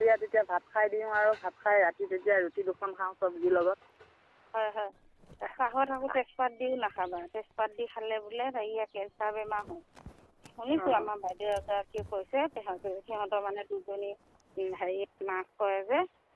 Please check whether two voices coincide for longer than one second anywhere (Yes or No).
No